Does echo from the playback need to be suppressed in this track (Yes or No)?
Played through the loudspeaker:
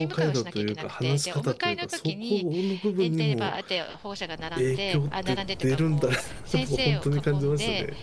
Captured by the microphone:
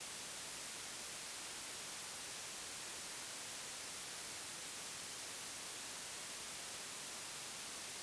No